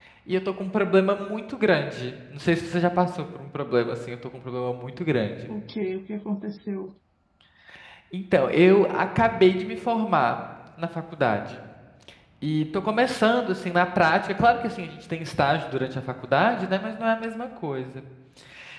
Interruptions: none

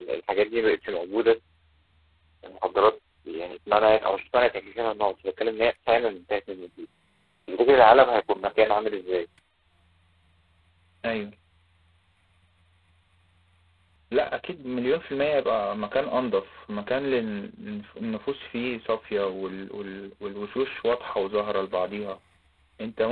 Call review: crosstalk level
none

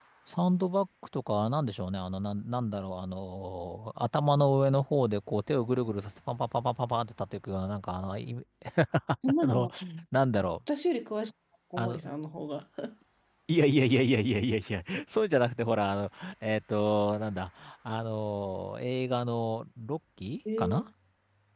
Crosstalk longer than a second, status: none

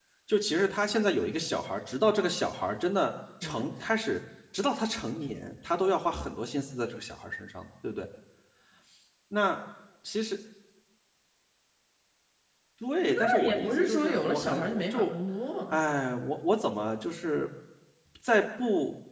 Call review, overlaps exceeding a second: present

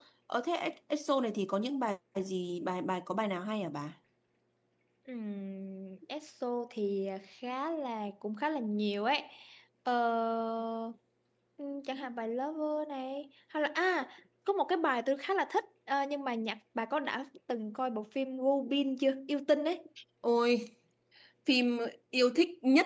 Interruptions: none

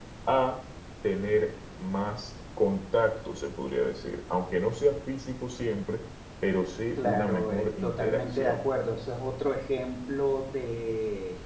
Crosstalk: present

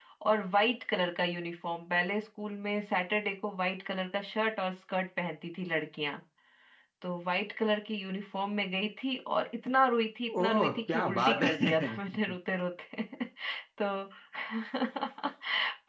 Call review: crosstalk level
present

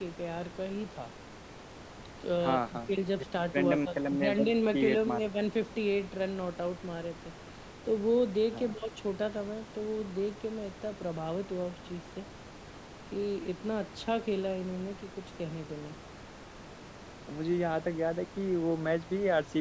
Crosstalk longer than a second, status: present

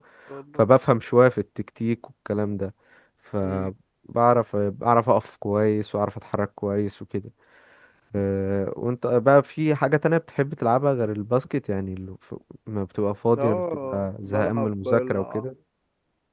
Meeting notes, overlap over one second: present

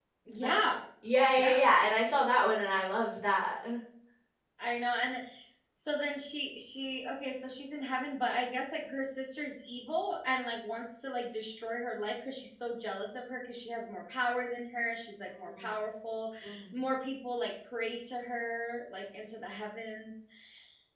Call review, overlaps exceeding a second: none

